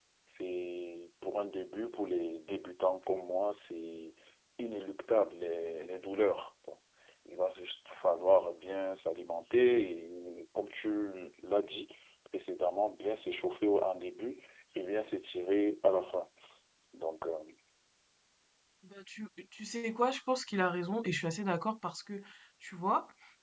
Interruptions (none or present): none